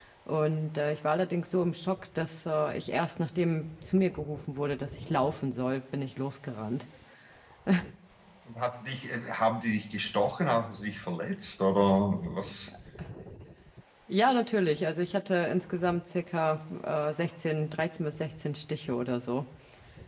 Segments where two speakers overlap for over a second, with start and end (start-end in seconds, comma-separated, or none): none